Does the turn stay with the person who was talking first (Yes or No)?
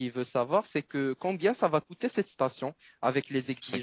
Yes